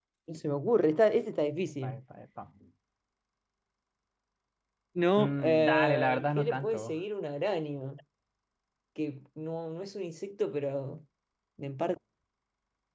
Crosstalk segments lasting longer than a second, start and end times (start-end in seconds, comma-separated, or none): 5.2-7.0